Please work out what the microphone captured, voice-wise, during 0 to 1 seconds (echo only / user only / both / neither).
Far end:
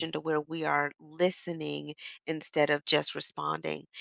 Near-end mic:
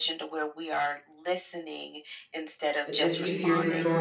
echo only